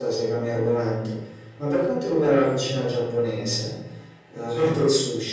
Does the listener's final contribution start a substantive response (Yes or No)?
No